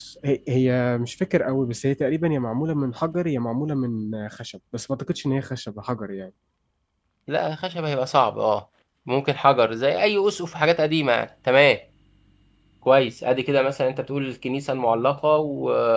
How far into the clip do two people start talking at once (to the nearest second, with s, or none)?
none